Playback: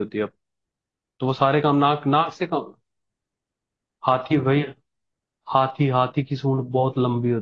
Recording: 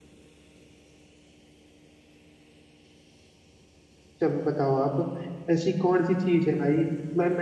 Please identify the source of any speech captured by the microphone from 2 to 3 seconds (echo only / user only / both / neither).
neither